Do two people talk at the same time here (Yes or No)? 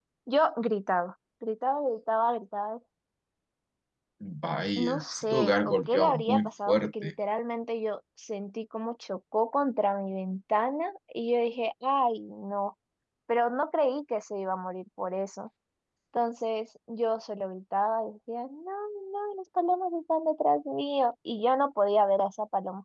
Yes